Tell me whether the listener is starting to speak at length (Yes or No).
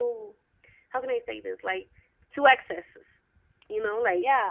Yes